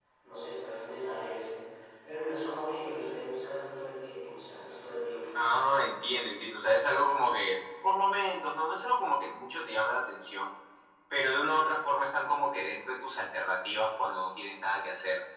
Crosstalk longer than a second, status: none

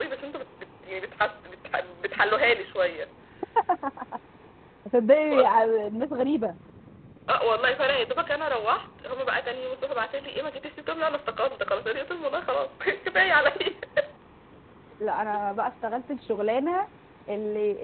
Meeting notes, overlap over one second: none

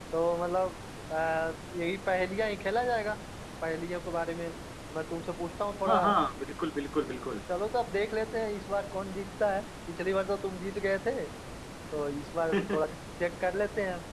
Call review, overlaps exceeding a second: none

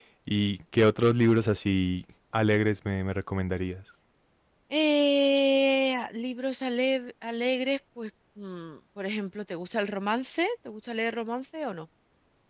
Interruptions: none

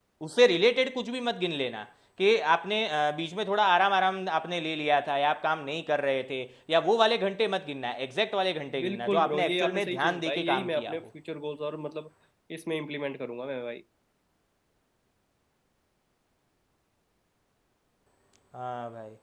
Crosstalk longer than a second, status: present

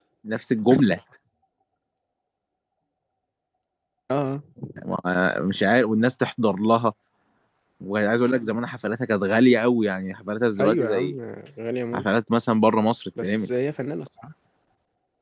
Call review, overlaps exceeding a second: none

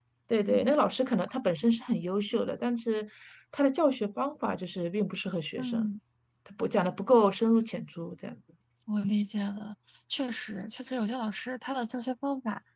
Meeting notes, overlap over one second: none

